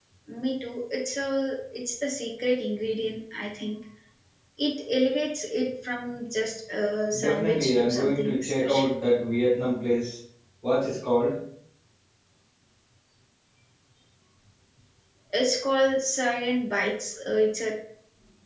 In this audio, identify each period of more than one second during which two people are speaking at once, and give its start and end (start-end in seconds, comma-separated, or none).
7.2-8.9